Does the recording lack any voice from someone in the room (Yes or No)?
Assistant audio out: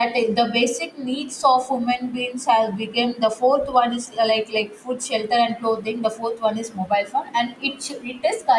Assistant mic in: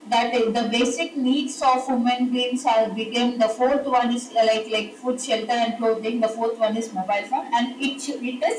Yes